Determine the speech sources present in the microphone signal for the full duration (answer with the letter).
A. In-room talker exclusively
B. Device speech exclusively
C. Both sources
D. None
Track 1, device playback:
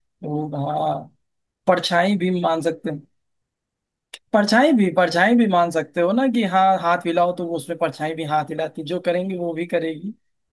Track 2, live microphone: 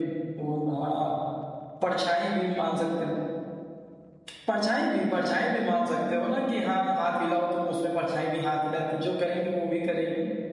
B